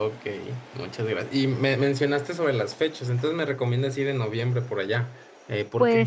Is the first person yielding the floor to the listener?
Yes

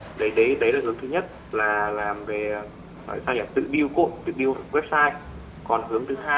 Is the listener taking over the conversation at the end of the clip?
No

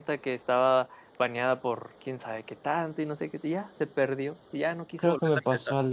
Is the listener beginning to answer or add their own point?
Yes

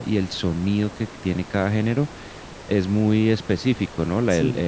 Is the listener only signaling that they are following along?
Yes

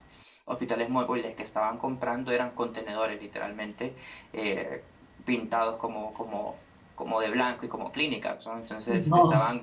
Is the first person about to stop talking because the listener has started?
No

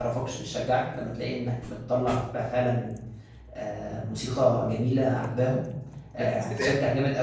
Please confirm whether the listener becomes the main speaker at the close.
No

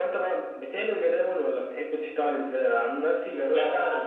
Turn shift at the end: No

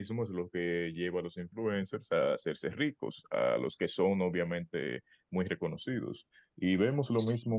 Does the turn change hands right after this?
No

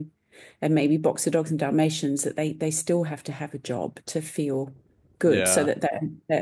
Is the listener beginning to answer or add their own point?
No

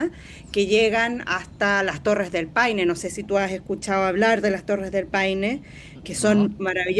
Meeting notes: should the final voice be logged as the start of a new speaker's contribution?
No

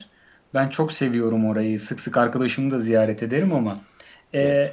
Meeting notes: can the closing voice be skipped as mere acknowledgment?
Yes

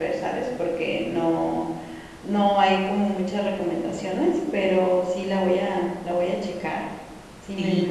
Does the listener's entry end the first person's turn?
Yes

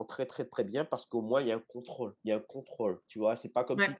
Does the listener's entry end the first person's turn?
No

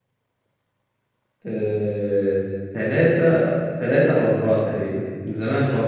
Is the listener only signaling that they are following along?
No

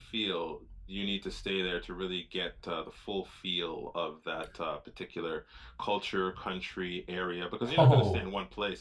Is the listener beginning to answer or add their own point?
No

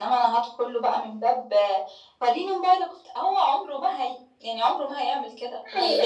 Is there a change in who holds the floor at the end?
Yes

